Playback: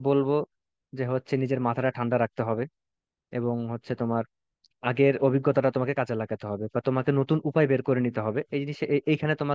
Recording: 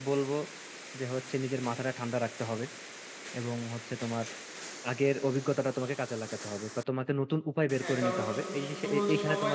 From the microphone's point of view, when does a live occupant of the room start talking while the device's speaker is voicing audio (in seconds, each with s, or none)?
7.8 s